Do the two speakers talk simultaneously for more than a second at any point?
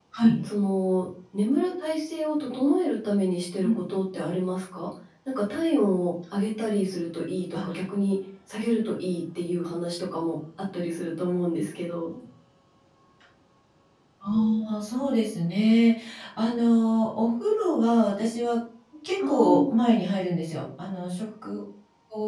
No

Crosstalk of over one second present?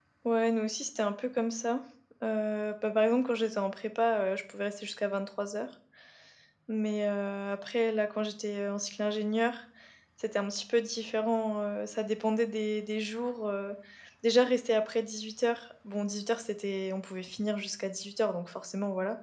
No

